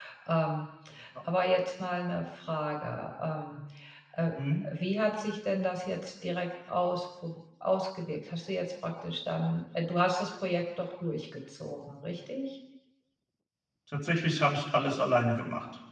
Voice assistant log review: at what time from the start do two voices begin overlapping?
none

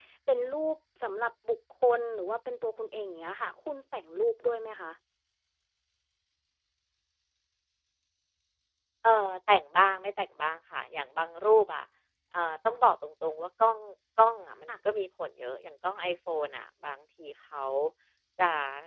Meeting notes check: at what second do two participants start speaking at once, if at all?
none

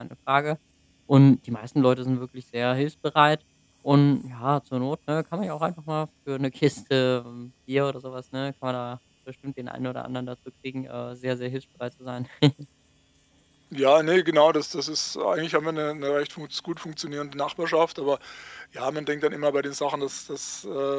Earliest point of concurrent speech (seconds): none

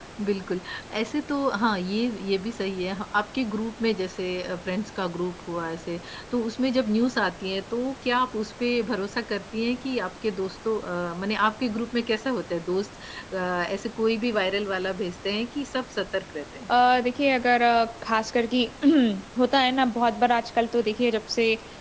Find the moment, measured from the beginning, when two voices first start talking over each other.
none

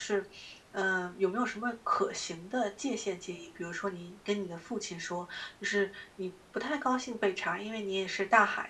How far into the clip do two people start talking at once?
none

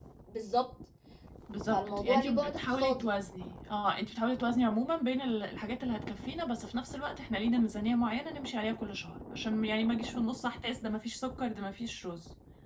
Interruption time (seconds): 1.7 s

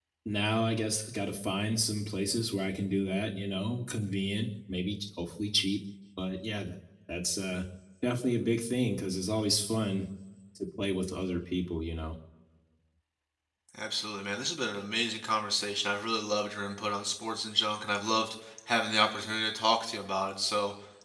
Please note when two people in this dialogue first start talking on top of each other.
none

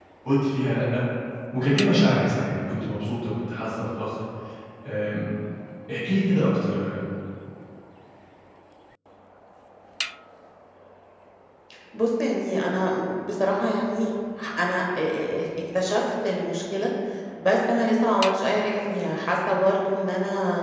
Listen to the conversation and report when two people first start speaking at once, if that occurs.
none

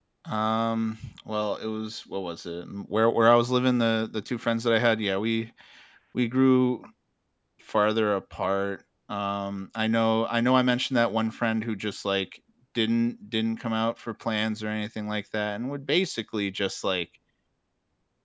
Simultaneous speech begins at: none

